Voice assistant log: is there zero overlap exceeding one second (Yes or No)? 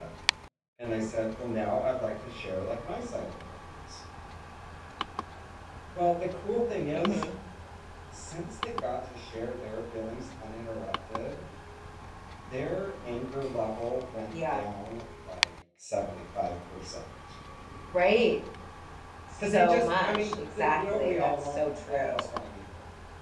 No